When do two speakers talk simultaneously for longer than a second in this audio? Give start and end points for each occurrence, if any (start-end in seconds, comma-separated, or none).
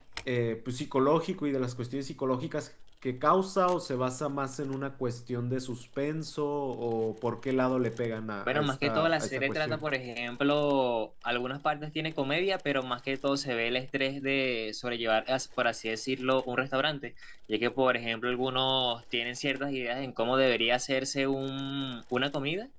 8.5-9.8